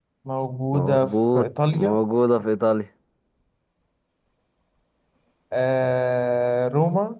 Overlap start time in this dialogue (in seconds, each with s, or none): 0.8 s